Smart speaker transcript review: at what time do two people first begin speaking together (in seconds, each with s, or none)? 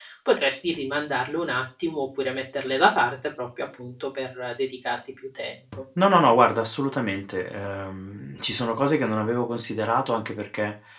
none